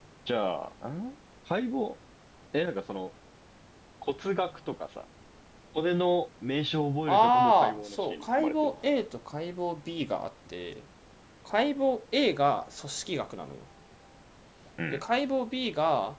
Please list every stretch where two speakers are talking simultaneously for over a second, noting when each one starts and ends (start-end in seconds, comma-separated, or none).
7.1-8.8